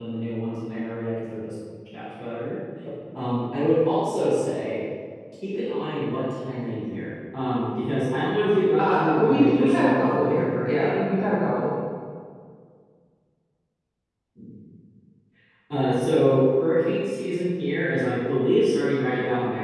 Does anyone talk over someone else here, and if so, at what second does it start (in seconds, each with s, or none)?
8.8 s